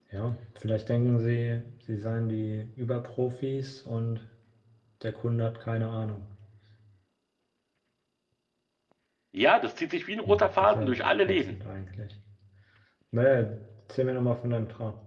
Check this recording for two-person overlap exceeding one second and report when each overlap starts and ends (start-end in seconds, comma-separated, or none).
10.2-11.5